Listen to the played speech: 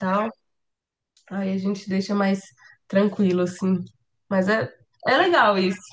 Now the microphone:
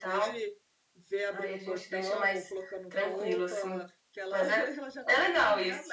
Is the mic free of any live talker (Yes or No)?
No